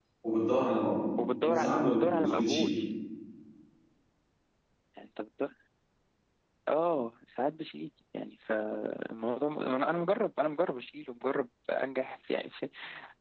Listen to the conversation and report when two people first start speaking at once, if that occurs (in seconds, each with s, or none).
1.2 s